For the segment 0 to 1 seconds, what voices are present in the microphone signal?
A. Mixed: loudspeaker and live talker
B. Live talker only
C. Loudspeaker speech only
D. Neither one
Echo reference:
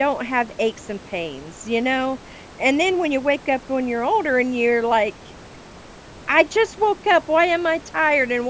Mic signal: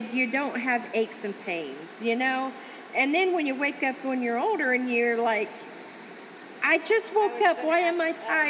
C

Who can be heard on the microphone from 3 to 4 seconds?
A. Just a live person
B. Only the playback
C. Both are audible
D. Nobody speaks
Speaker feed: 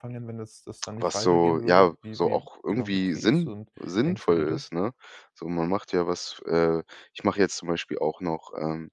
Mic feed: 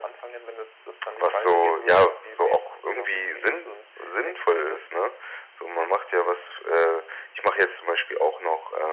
B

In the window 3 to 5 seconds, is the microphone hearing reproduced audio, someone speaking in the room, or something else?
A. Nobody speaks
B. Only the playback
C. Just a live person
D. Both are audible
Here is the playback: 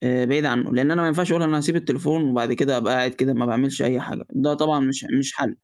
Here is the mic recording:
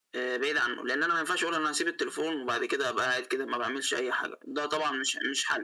B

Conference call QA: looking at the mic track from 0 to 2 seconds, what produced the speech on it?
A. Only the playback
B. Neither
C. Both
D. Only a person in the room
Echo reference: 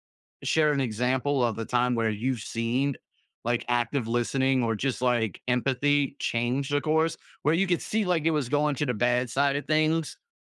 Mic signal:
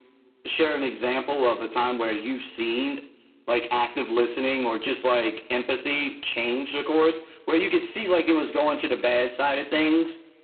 A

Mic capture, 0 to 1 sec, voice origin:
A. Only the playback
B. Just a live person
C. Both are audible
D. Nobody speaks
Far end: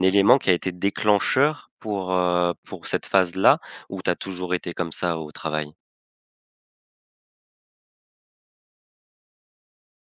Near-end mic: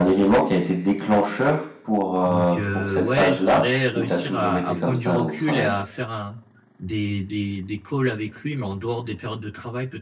A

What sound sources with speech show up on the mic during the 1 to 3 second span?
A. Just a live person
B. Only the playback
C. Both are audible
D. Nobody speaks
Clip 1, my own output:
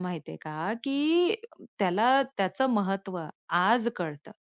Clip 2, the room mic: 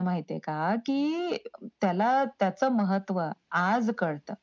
B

